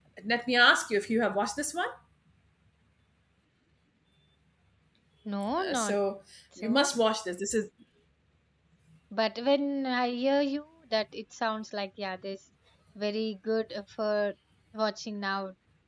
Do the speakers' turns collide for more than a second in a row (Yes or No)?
No